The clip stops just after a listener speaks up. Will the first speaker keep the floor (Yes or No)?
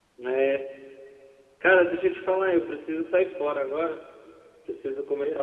Yes